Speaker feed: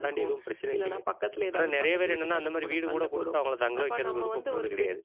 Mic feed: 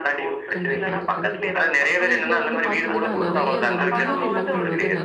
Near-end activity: present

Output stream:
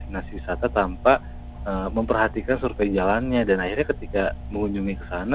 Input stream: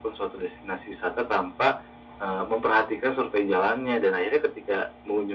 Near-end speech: none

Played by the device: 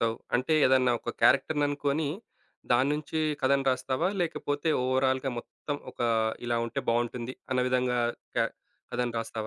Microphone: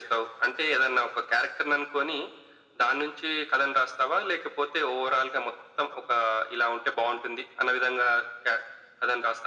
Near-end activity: none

